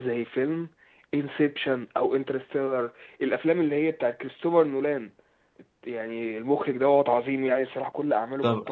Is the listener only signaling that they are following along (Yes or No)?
No